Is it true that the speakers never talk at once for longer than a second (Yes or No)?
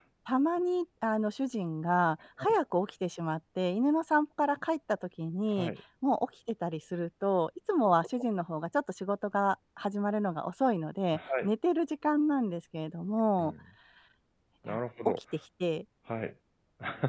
Yes